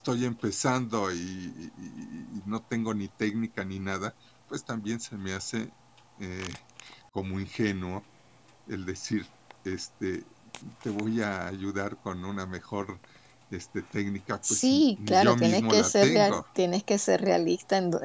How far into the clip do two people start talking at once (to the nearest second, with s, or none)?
14 s